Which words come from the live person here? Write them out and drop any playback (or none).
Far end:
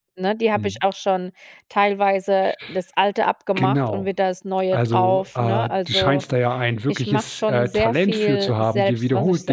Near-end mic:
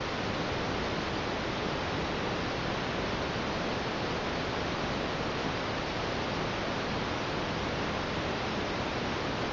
none